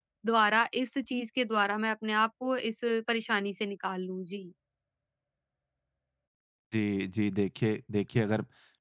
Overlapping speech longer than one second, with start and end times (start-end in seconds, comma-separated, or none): none